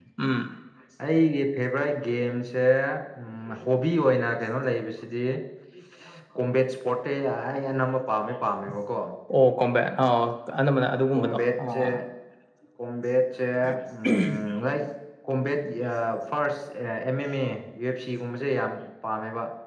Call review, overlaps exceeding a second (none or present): none